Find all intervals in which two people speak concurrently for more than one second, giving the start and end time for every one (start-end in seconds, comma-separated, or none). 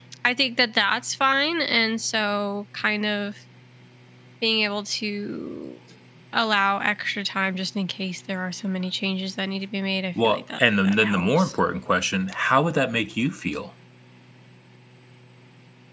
10.2-11.5